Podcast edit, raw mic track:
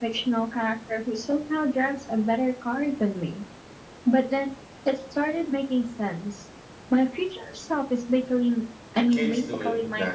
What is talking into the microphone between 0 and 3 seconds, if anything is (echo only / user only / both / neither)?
echo only